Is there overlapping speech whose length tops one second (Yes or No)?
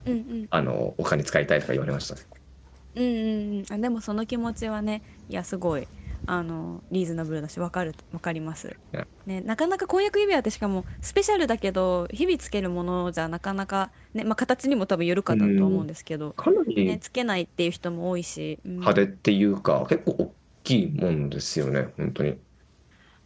No